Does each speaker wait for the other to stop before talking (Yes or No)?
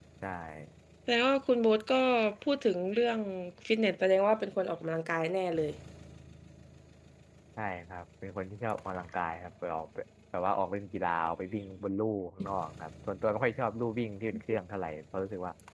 Yes